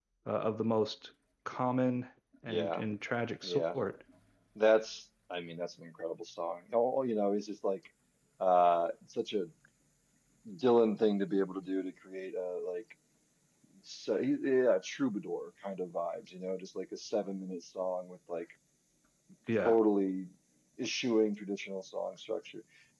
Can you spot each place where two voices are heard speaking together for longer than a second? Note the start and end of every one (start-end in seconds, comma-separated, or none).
none